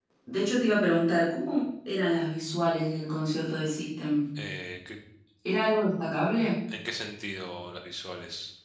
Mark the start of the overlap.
none

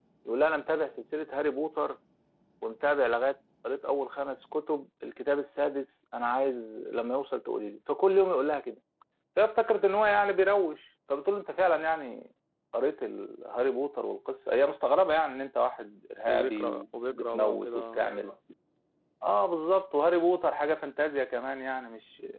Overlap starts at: 16 s

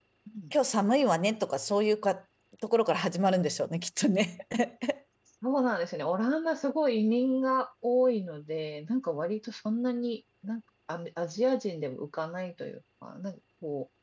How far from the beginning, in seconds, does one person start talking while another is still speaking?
none

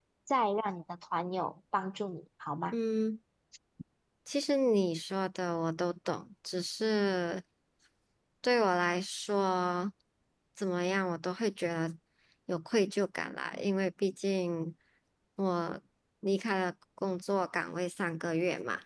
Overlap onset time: none

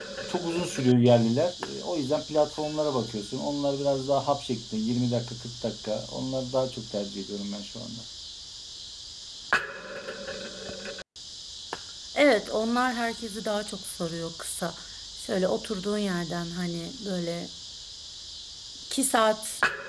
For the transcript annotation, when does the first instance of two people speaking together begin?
none

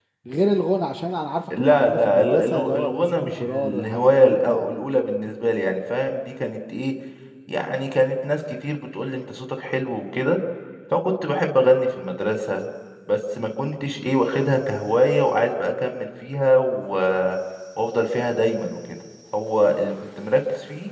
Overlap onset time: 2 s

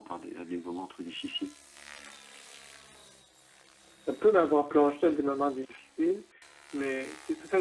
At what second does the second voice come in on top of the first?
none

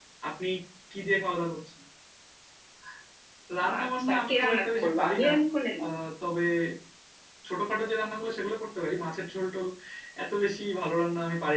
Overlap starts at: 4 s

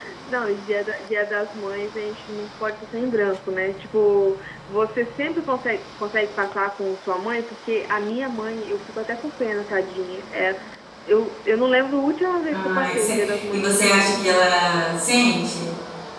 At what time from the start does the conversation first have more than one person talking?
13 s

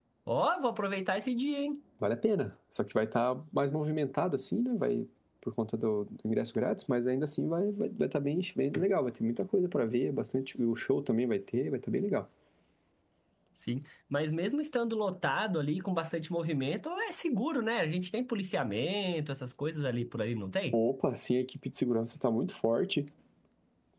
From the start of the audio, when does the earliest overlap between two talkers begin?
none

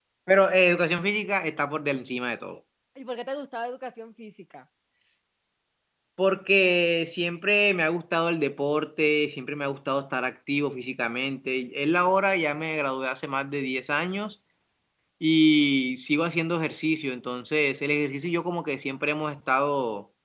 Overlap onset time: none

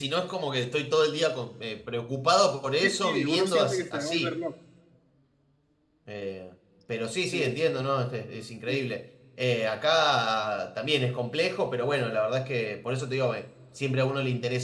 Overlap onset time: 3 s

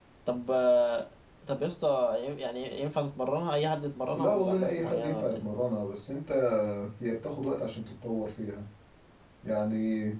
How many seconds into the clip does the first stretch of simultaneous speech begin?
4 s

